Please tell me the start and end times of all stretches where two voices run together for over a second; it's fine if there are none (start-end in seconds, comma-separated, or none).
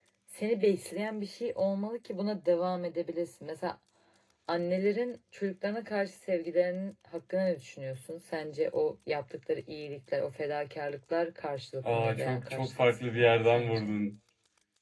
11.9-13.9